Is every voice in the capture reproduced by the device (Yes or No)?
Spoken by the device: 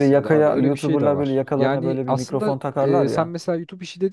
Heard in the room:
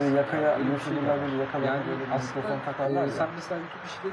Yes